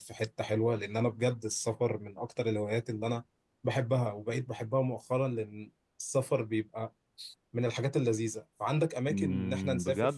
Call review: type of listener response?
taking over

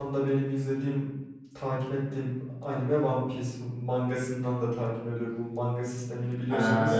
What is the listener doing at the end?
taking over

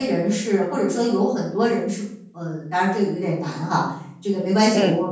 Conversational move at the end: listening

